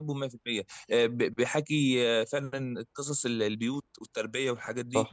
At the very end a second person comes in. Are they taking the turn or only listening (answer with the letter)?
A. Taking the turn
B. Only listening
B